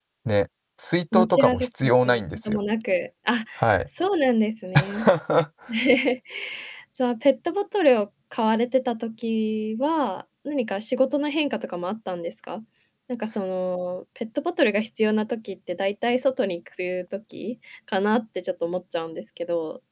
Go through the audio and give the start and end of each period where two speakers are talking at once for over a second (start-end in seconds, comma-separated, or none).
1.1-2.6